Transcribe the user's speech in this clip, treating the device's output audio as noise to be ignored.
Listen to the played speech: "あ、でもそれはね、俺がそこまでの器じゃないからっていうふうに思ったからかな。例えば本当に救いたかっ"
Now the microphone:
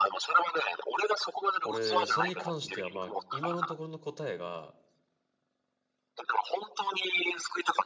俺、それに関しては、まあ、今のところの答えが、

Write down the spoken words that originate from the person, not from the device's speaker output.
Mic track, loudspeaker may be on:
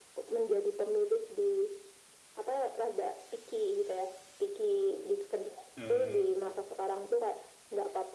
eh

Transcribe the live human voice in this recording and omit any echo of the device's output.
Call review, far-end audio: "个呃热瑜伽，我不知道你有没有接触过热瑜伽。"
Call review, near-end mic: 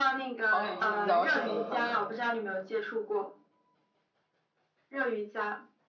黄礼志，你知道是哪个团吗？

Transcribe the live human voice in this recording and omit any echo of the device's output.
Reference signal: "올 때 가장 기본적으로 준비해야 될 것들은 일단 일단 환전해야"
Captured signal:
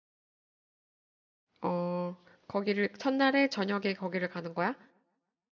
어. 거기를, 첫날에 저녁에 거기를 가는 거야?

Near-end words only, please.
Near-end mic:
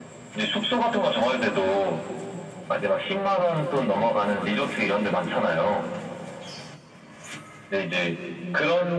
none

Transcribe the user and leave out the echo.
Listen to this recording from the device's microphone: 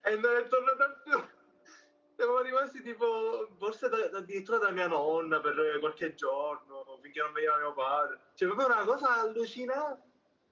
none

